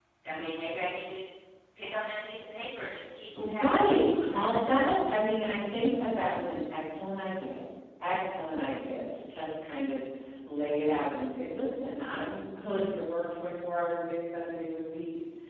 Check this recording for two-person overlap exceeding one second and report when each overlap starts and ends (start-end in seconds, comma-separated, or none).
3.4-5.0